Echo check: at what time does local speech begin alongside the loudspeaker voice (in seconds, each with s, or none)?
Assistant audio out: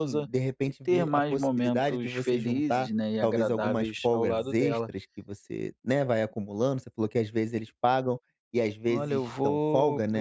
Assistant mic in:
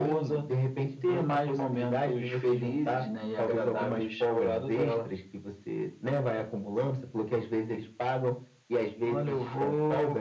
none